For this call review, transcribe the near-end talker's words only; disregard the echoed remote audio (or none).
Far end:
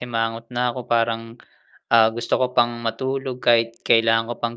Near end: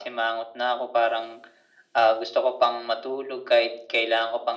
none